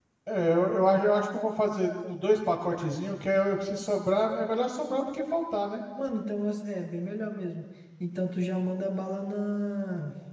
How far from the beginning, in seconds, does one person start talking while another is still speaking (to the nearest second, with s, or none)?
none